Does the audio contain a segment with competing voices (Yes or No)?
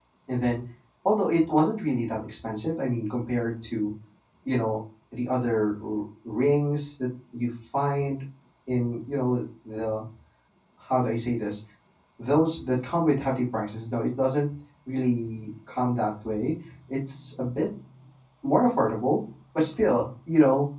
No